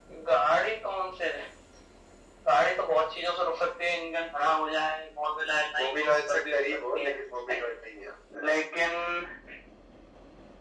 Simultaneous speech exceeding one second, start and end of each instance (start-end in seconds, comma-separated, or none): 5.8-7.1